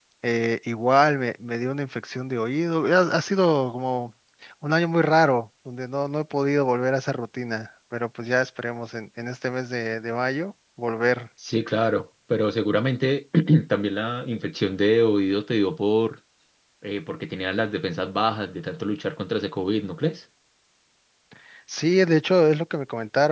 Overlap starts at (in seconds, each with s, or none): none